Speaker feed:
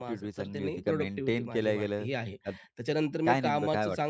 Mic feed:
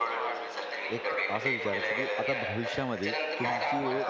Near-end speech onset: 1 s

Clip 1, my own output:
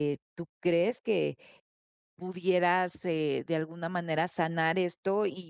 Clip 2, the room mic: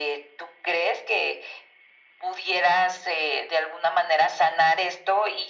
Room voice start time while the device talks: none

